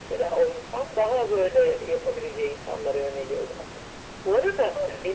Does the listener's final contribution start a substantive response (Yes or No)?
No